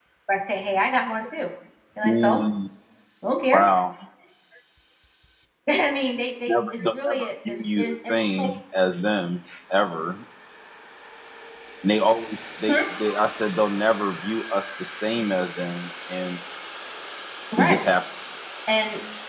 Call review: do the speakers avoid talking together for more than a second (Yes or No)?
No